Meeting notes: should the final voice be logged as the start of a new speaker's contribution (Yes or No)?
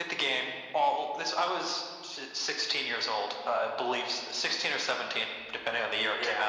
Yes